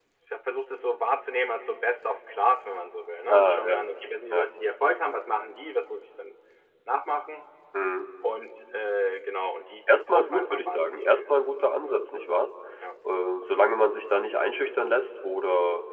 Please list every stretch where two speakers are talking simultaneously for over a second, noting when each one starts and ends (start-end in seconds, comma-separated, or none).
9.9-11.4